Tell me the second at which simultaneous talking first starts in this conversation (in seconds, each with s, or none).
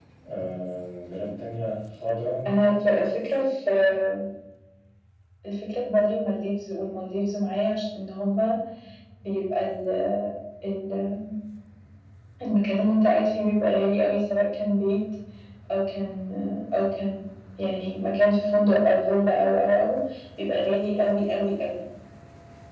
none